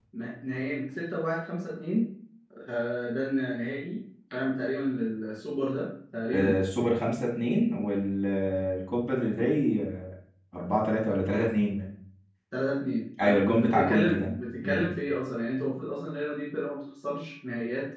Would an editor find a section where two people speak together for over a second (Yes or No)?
Yes